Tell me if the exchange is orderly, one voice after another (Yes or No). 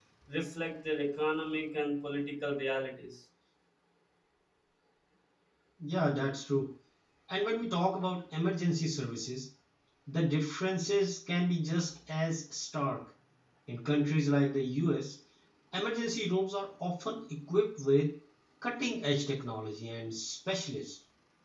Yes